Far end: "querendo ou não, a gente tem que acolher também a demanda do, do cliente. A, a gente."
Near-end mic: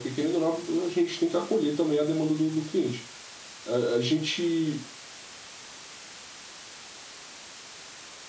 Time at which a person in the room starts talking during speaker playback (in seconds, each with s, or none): none